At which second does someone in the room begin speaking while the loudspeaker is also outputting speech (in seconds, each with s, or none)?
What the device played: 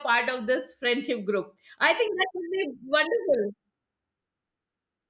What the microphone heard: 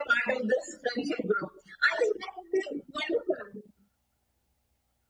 none